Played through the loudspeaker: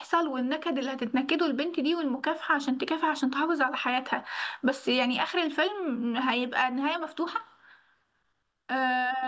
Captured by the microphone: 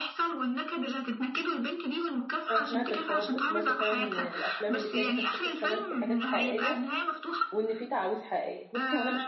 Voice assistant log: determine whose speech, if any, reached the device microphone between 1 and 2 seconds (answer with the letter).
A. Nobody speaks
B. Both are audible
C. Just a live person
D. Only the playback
D